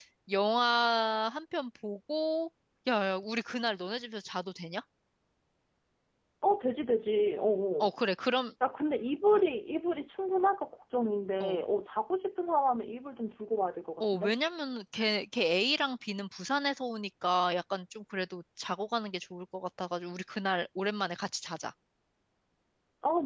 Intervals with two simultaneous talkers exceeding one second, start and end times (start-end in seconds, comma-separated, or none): none